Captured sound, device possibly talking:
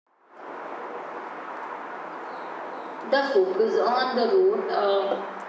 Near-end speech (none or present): present